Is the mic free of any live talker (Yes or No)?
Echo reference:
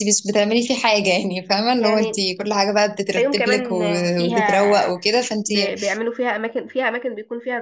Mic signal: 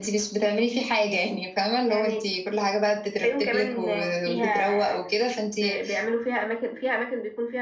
Yes